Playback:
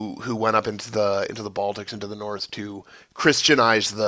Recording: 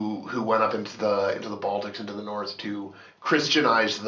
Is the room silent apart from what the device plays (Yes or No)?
Yes